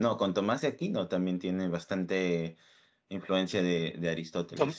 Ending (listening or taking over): taking over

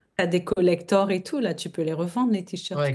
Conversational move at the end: taking over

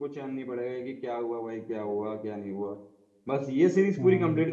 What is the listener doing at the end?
listening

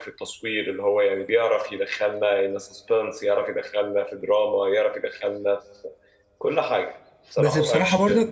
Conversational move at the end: taking over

